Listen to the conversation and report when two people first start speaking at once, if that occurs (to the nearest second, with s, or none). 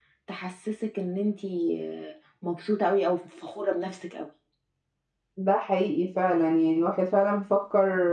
none